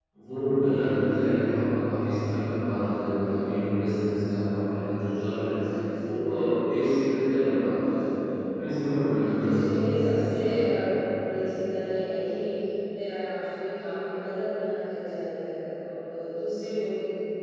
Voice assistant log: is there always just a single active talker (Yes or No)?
No